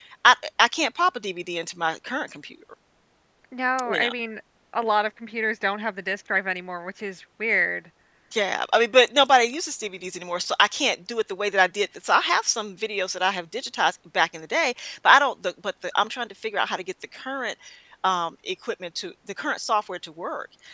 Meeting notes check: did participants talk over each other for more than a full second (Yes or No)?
No